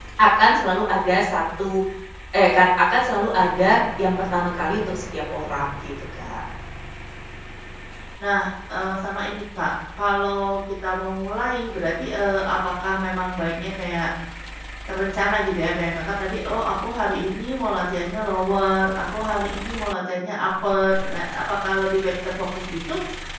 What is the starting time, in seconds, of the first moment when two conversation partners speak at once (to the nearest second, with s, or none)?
none